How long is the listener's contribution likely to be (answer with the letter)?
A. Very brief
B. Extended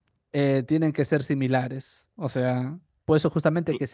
A